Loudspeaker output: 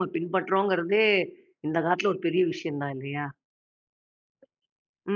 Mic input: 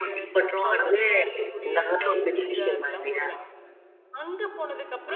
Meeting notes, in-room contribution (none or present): present